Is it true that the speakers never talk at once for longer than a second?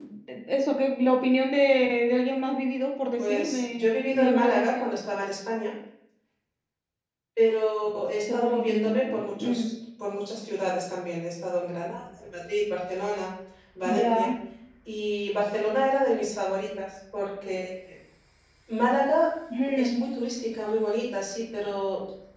No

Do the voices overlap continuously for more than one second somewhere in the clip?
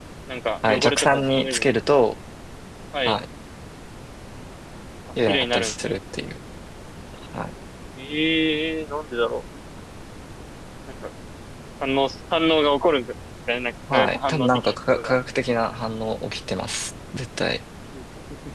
Yes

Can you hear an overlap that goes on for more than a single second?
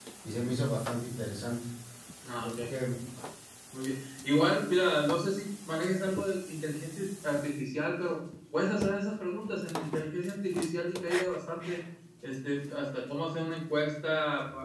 No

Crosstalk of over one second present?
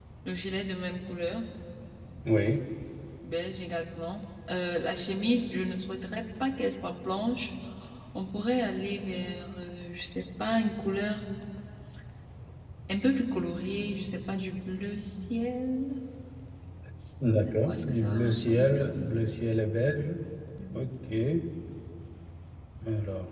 Yes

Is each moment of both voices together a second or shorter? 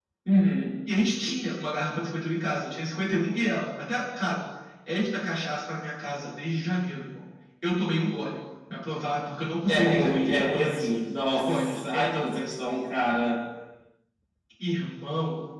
No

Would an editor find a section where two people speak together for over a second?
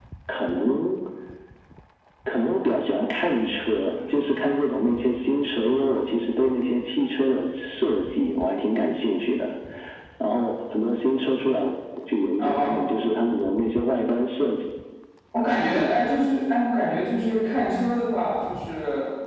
No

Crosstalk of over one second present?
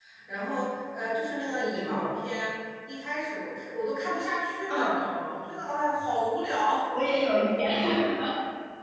No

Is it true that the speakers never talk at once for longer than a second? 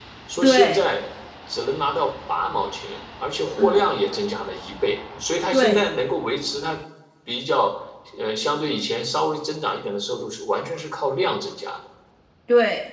Yes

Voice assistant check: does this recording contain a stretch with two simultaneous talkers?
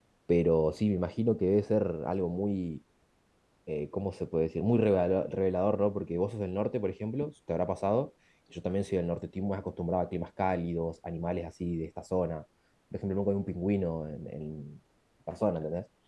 No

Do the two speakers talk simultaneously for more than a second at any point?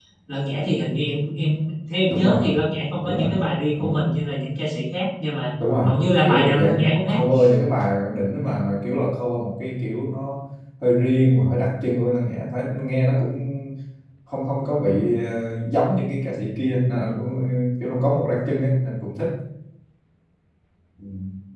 Yes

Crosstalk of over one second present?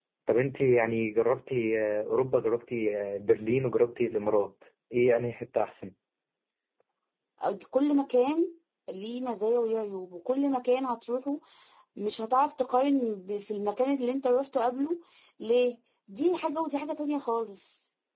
No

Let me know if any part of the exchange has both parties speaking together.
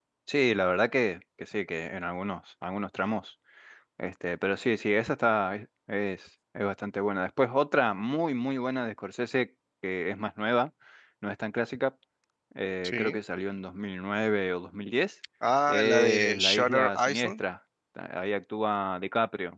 Yes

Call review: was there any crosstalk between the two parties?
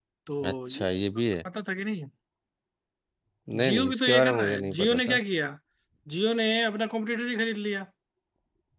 Yes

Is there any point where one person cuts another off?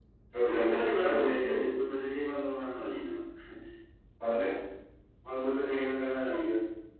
Yes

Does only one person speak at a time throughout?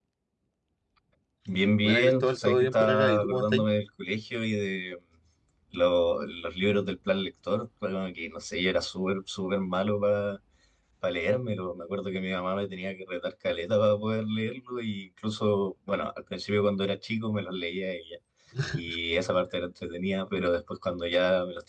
No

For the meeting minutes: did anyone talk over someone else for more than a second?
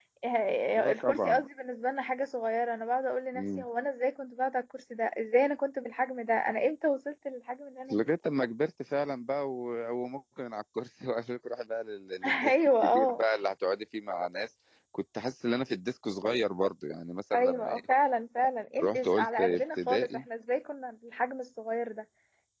Yes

